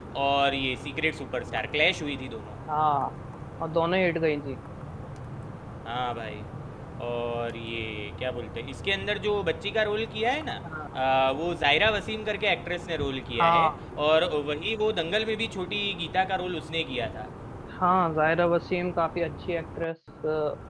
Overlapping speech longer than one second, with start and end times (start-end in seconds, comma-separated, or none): none